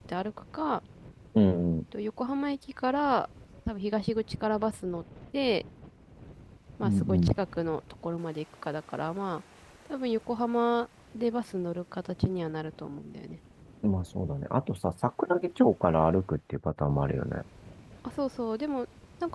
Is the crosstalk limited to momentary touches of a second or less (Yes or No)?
Yes